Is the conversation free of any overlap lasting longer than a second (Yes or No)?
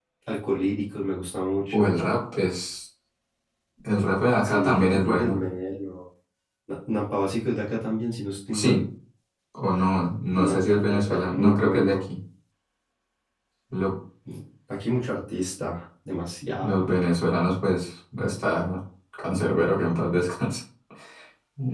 No